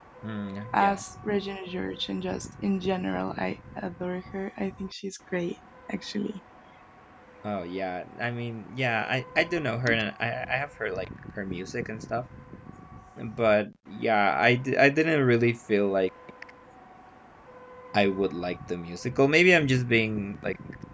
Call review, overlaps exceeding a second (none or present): none